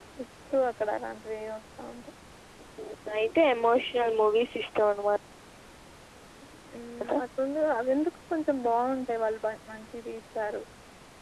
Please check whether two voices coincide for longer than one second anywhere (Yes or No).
No